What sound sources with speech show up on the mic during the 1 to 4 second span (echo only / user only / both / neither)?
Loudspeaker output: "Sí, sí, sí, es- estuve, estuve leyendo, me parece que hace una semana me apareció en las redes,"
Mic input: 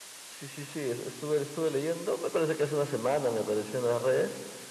echo only